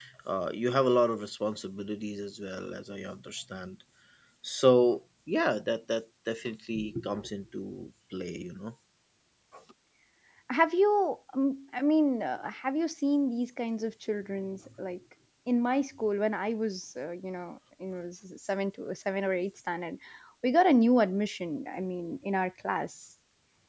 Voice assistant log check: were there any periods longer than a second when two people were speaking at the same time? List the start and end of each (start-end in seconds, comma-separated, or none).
none